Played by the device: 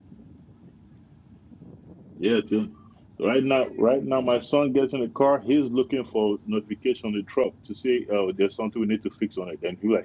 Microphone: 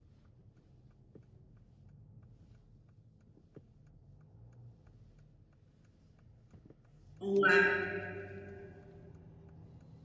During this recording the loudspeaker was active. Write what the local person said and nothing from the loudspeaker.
Wow.

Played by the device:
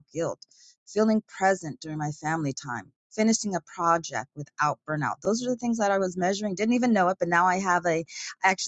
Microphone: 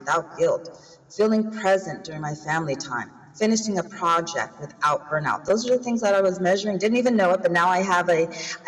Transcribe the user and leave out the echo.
none

